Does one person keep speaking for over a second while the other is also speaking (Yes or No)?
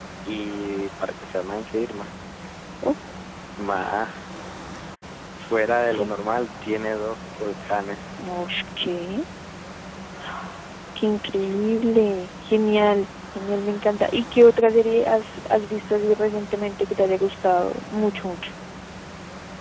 No